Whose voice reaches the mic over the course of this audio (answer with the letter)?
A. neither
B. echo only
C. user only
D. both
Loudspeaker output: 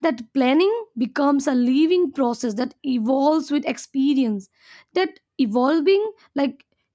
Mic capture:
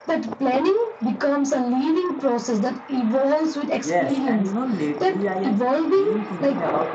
D